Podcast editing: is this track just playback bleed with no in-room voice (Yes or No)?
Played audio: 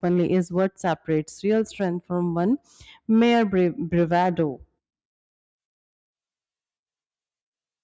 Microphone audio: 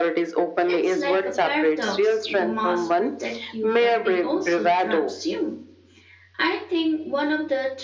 No